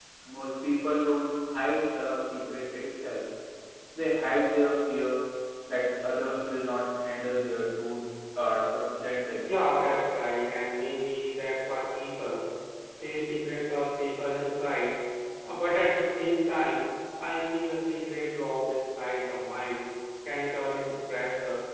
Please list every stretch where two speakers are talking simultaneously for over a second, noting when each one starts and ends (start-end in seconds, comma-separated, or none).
none